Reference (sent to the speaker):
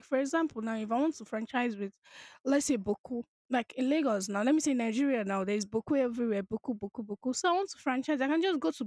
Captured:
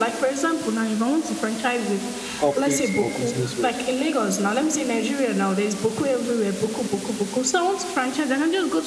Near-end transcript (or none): corporate or business world?